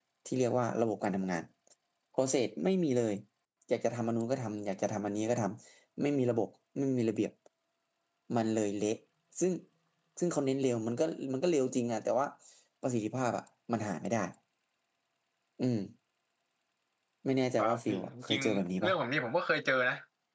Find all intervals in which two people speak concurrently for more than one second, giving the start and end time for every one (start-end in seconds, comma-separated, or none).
17.6-18.9